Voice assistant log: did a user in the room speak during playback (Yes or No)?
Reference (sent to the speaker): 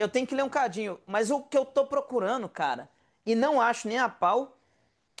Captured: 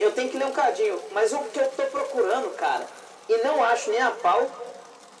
No